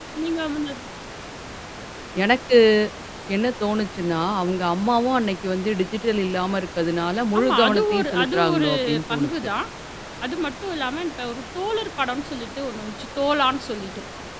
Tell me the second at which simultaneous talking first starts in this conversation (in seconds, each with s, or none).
7.3 s